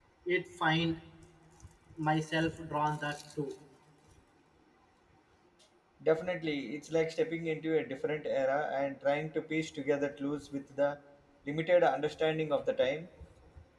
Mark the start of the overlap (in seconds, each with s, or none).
none